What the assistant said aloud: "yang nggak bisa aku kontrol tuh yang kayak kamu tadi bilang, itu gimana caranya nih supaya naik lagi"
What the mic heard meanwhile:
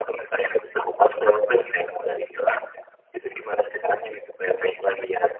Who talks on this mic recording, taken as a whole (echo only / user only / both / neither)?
echo only